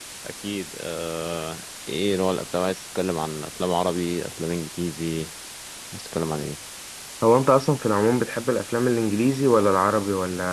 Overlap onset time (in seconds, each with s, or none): none